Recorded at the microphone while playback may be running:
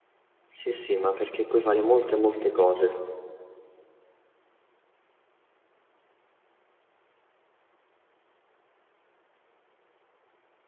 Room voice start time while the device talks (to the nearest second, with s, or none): 1 s